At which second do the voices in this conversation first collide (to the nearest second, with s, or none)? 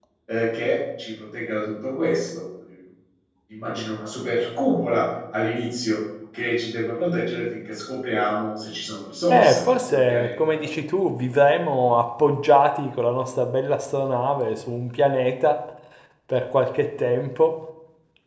9 s